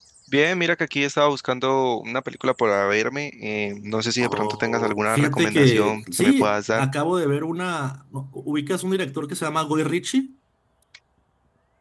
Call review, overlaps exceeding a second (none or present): present